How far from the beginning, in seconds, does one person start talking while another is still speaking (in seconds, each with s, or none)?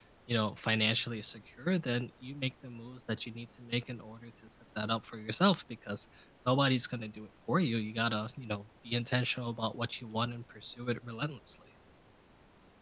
none